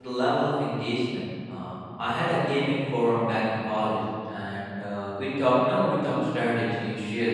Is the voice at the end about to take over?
No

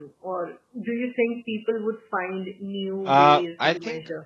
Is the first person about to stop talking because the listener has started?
Yes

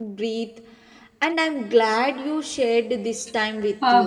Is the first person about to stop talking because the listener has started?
Yes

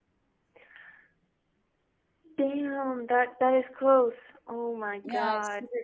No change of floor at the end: No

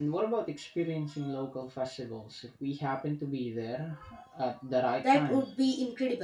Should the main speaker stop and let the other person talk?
Yes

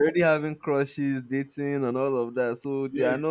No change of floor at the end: No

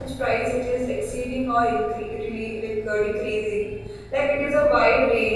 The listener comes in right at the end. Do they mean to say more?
No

